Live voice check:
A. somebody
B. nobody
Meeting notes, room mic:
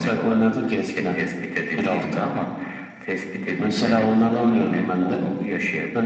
B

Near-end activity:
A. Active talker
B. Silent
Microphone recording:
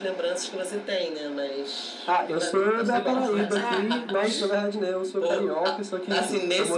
A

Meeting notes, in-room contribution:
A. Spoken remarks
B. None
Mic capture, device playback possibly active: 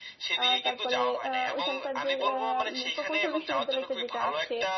A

